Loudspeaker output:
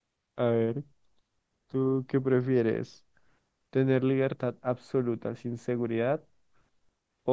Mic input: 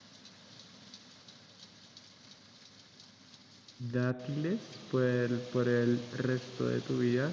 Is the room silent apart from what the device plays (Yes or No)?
No